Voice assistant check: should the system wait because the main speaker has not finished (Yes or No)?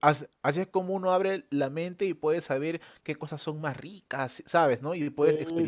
No